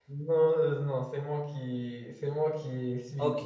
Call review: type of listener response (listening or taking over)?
taking over